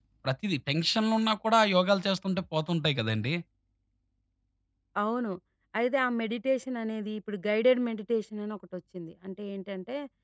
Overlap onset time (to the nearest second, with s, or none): none